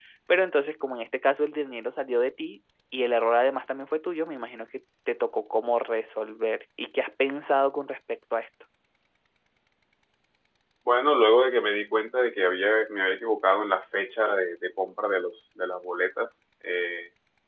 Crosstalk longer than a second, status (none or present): none